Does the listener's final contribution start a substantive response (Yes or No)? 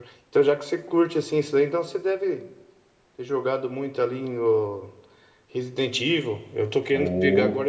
No